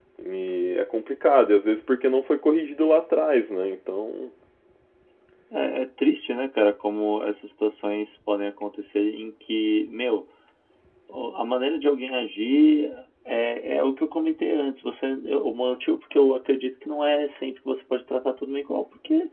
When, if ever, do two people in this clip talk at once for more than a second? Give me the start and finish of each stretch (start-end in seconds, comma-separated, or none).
none